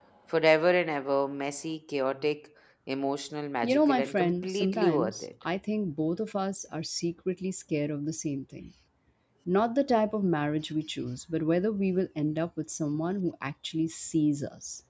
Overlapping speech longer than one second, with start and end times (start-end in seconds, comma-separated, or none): 3.6-5.2